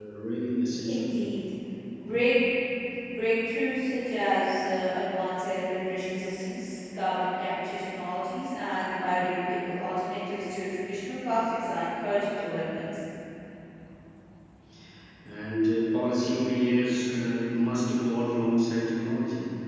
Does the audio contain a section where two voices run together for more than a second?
No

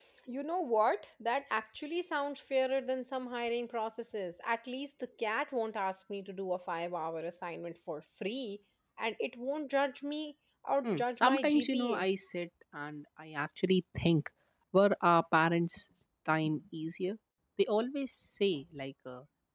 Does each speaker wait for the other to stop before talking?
No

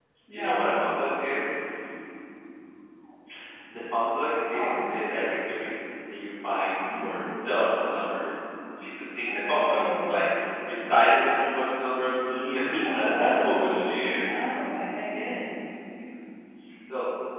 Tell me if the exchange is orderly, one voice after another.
No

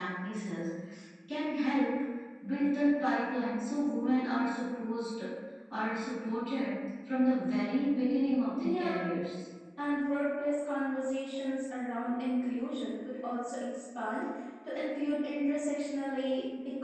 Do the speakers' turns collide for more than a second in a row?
No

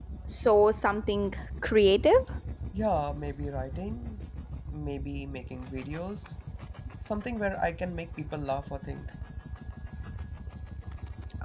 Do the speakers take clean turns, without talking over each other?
Yes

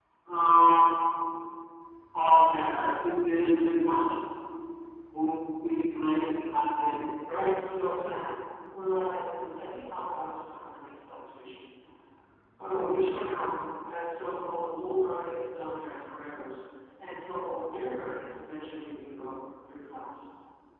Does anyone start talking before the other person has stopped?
No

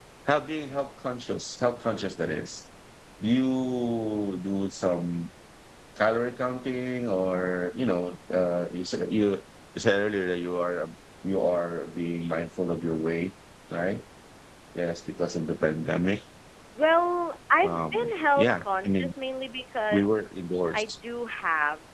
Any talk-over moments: Yes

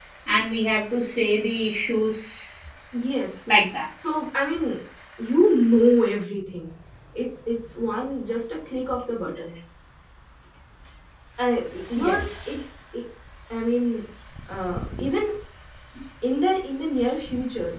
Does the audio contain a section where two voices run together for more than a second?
No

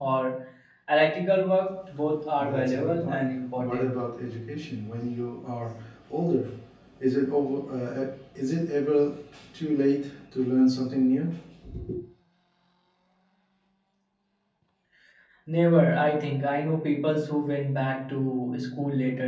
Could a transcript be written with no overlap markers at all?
No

